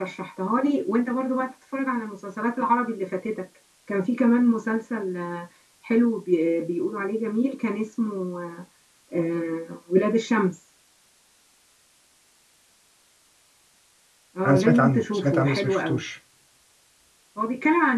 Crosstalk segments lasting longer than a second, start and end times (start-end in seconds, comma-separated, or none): 14.5-16.0